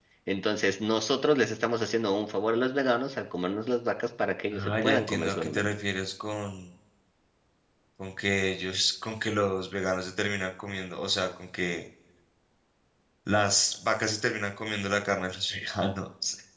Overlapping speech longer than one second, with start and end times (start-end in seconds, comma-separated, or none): 4.5-5.7